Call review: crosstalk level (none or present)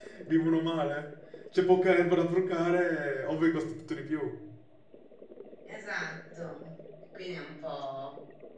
none